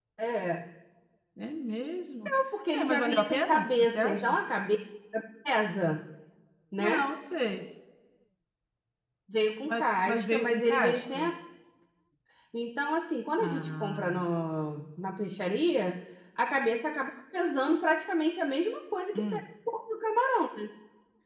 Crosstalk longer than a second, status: present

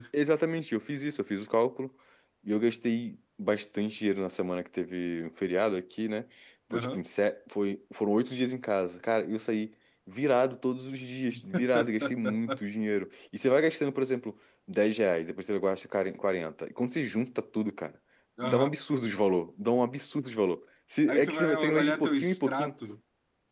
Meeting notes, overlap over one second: present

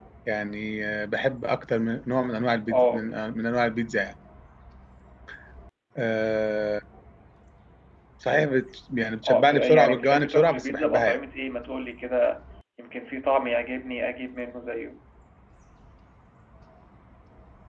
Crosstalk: present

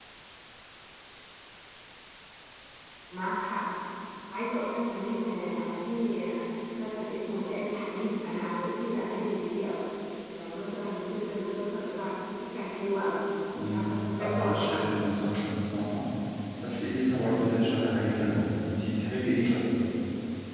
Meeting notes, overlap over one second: present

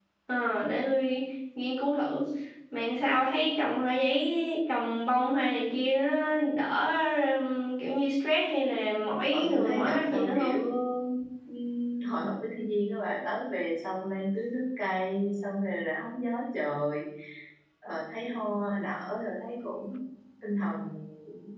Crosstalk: present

